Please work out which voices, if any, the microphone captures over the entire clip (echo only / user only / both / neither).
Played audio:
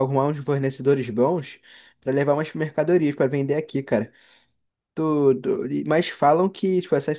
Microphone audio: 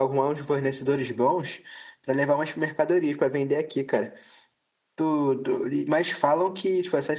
echo only